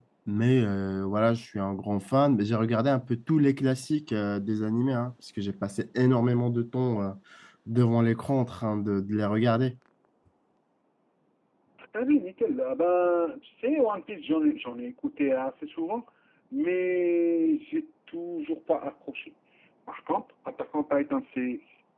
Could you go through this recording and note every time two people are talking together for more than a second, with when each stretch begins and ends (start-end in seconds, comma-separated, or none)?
none